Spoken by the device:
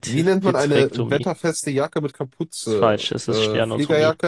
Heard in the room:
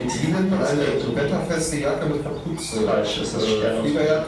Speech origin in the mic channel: echo only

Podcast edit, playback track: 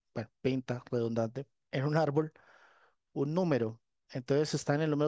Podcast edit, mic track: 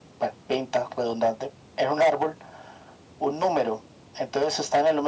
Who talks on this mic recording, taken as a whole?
echo only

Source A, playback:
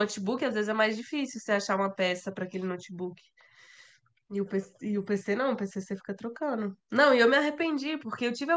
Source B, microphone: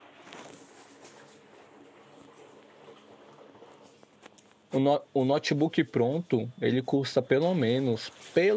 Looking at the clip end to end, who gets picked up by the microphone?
user only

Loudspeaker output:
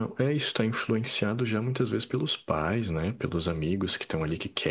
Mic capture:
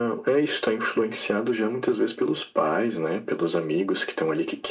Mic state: echo only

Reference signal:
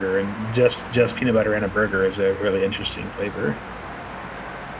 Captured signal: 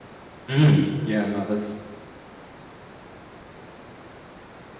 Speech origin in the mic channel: user only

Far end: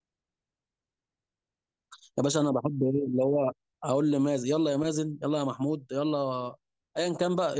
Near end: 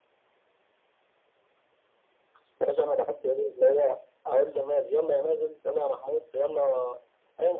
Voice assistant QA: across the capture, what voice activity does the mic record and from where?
echo only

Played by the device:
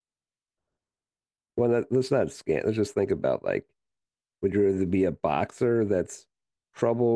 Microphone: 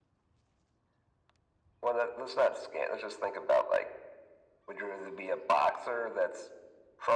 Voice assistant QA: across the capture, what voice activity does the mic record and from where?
echo only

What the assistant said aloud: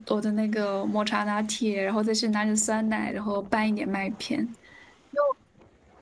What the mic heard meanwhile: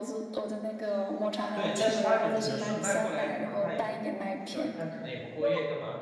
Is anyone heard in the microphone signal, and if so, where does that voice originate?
both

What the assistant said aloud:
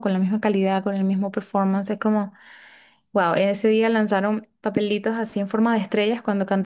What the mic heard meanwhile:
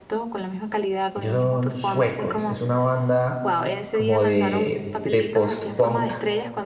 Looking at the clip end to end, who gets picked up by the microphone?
both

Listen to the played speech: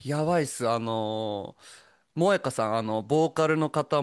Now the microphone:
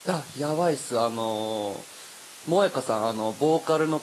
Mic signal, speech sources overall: echo only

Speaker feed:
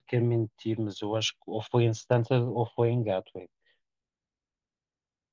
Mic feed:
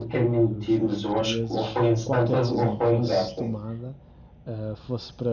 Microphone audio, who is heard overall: both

